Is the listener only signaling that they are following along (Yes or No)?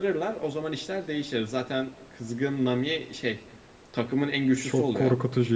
No